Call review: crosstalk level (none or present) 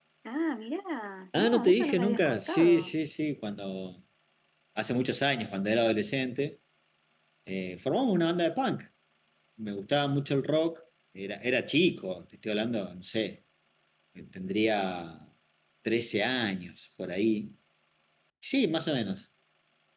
present